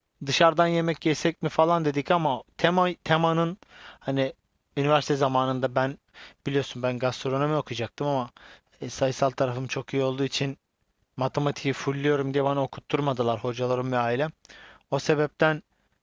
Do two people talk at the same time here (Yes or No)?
No